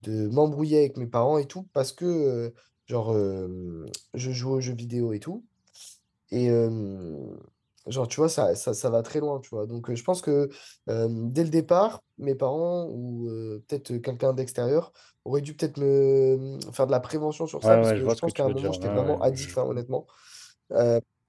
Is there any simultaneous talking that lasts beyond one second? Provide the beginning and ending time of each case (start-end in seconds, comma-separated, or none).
17.6-19.6